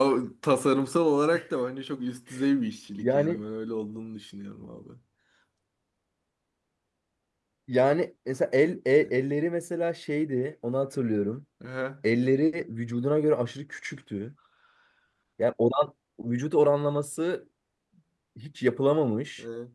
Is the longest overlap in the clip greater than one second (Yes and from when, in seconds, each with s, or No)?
No